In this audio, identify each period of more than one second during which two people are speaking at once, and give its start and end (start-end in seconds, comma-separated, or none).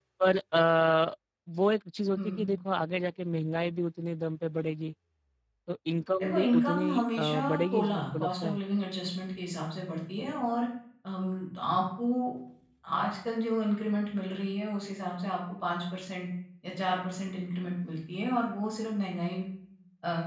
6.2-8.6